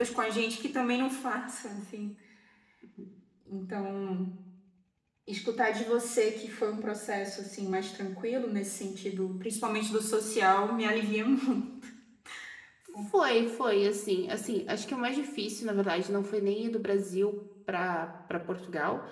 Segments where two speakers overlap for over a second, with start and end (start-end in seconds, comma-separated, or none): none